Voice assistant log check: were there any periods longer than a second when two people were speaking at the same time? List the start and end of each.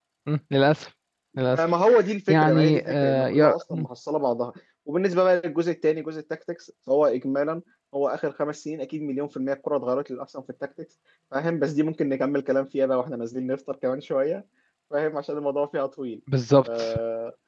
2.3-3.9

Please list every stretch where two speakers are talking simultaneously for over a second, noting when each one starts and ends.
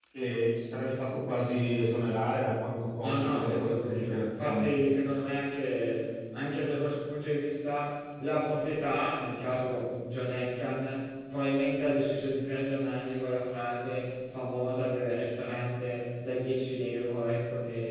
3.0-4.7

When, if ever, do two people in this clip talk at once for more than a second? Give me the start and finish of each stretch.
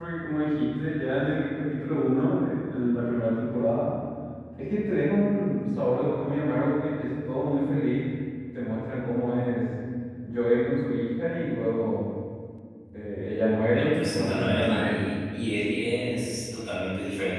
13.7-15.0

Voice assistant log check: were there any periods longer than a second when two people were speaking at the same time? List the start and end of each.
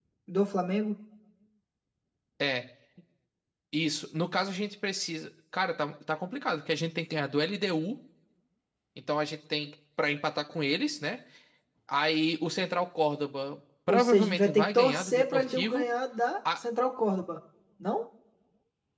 13.9-15.9

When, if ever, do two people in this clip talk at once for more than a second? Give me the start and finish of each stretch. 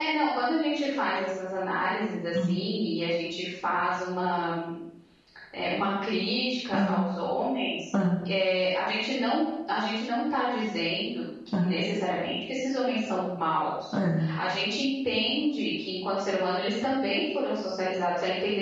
none

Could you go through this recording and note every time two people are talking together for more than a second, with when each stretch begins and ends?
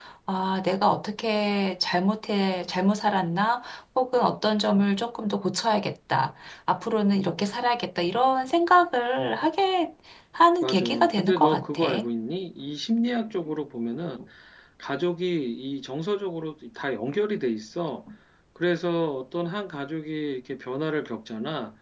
10.6-11.8

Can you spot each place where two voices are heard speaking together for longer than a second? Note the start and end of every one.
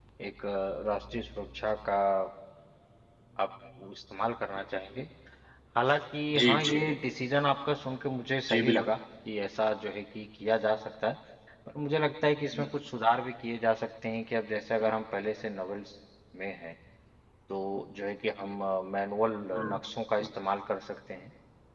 none

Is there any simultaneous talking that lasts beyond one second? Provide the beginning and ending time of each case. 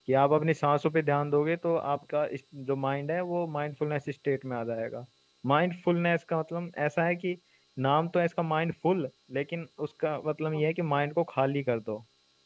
none

